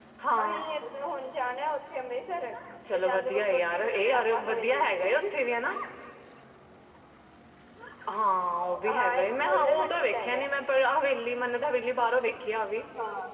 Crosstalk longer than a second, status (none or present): present